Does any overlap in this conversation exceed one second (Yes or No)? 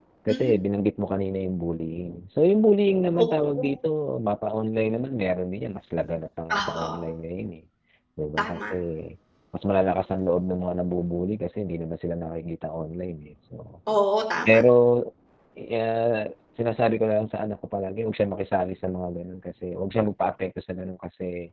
No